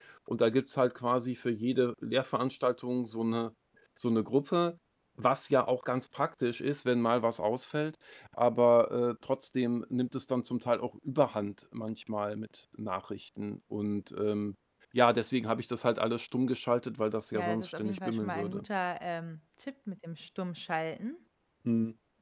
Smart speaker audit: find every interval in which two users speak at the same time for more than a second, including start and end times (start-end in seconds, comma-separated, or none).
17.3-18.6